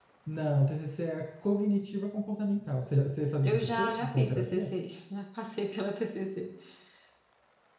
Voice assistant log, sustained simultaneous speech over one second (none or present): present